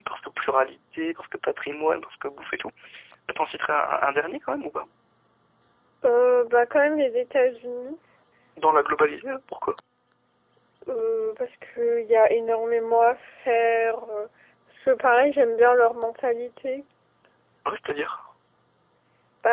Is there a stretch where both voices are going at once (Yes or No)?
No